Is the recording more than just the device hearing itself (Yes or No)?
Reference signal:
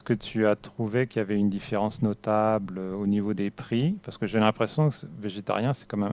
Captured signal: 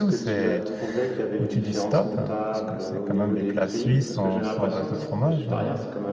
Yes